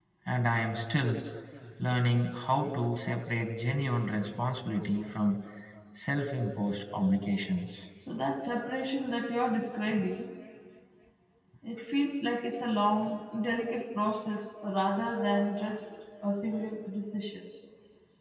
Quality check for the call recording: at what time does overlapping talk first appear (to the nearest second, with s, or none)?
none